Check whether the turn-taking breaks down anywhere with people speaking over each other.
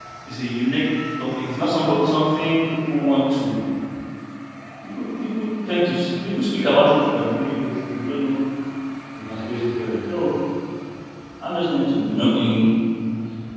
No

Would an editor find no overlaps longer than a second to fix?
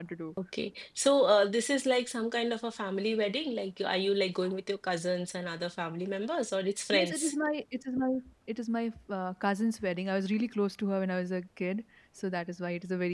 Yes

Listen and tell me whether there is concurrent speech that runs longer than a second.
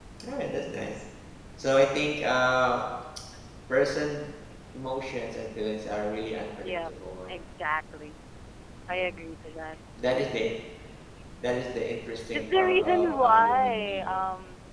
Yes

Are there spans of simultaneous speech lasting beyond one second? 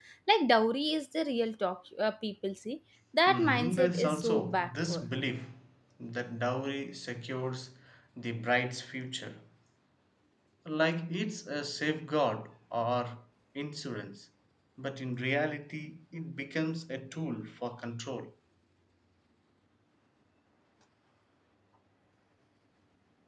Yes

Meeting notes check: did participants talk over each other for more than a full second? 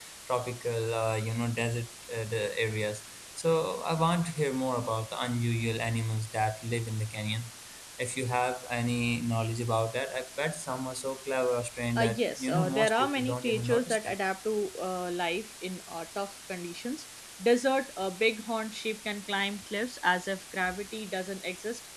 Yes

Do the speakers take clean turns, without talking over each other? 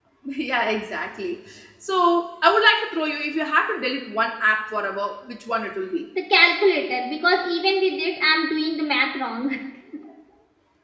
Yes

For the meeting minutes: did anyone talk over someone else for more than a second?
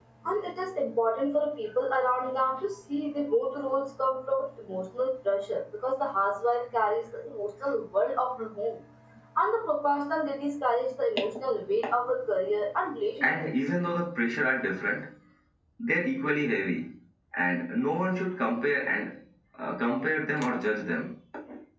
No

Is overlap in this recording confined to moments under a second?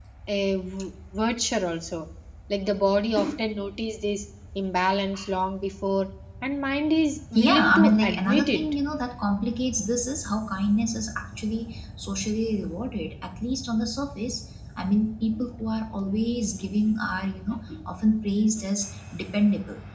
No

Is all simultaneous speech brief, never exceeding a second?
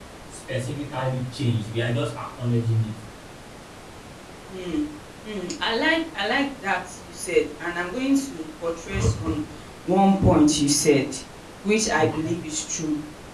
Yes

